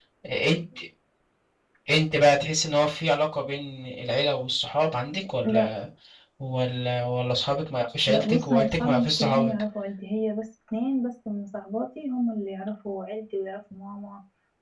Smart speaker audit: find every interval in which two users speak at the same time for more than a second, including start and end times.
8.1-9.5

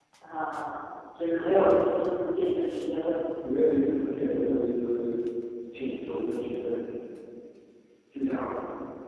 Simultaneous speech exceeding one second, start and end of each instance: none

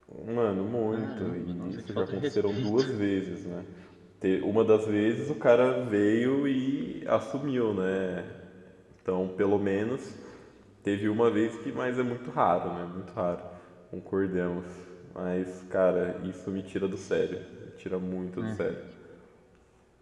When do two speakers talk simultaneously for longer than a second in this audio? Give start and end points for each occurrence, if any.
0.9-2.9

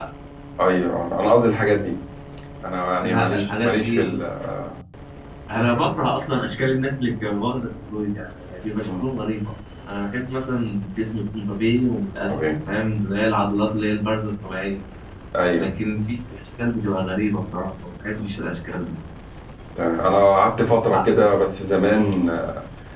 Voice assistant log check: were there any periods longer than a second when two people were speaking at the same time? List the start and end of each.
3.0-4.2

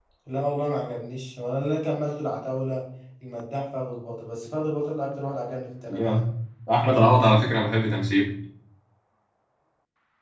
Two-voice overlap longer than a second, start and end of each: none

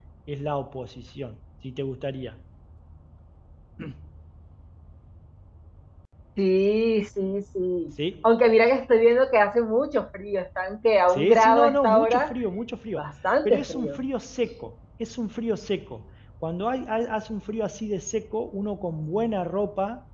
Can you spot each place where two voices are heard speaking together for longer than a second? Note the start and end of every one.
11.1-12.3

